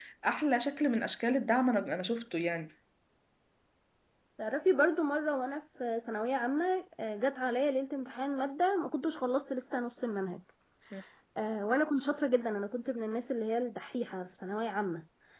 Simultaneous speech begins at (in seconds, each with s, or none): none